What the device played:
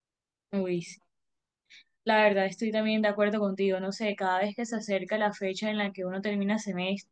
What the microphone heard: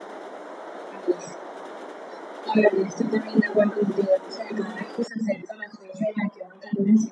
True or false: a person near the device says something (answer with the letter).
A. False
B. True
A